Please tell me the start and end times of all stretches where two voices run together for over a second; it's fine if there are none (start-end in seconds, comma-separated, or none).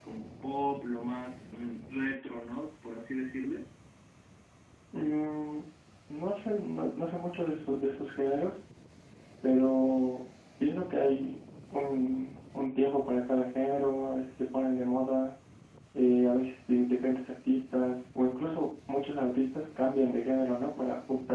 none